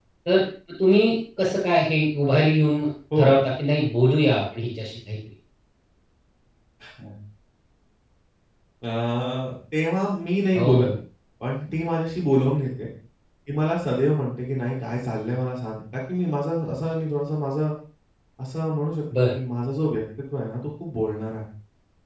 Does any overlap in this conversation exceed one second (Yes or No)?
No